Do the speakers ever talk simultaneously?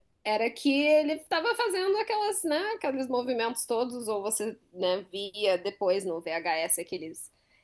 No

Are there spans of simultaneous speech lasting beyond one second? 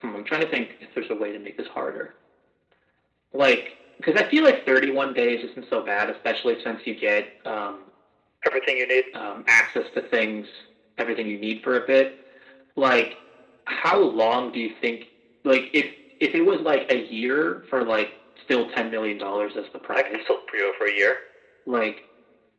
No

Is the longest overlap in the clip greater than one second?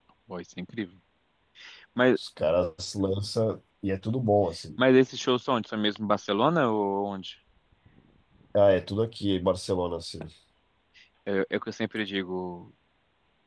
No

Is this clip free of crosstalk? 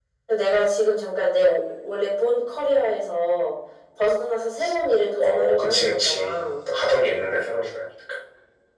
No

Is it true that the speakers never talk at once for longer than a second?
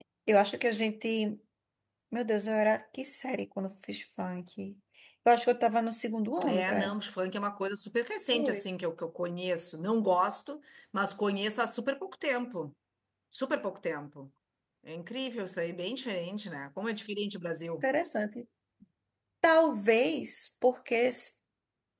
Yes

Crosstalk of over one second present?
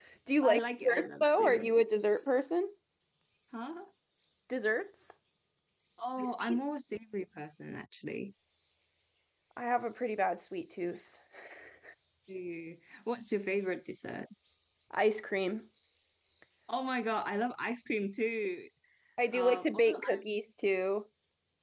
Yes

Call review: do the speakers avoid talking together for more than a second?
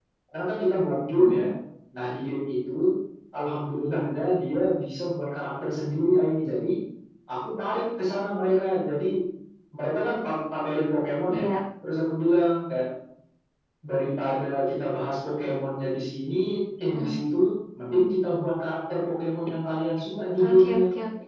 Yes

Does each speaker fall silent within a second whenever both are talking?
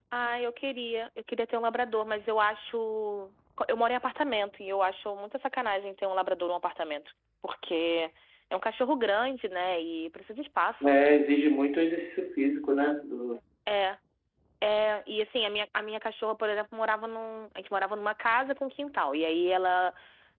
Yes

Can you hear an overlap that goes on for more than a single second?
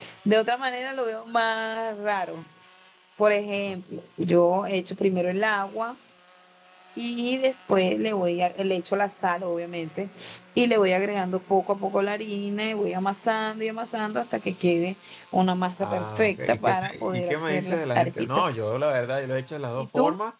Yes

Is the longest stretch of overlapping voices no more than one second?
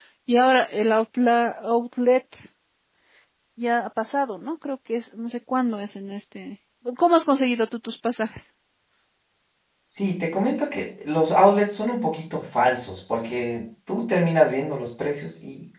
Yes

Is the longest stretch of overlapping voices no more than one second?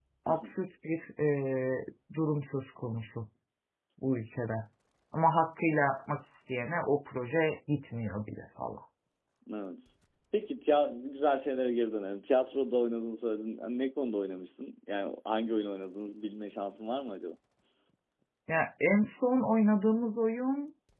Yes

